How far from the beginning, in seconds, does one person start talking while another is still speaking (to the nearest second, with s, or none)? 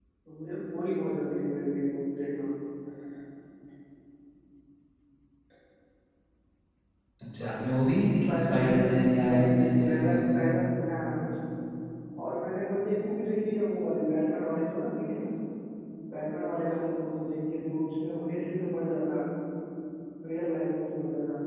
8 s